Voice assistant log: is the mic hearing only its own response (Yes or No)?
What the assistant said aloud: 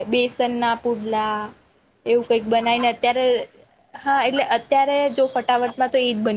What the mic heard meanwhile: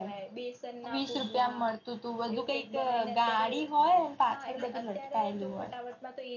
No